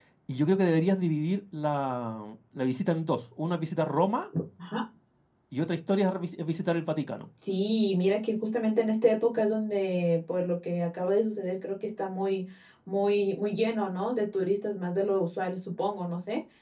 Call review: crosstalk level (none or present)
none